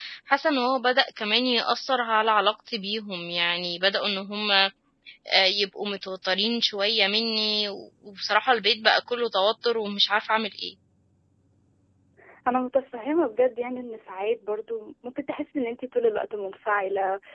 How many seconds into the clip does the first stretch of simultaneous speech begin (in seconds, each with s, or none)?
none